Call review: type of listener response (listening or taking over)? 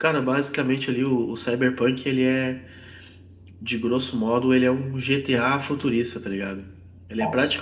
listening